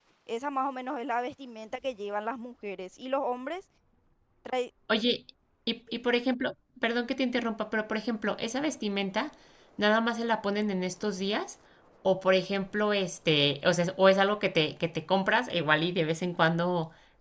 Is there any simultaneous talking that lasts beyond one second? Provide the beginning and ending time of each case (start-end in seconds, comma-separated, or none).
none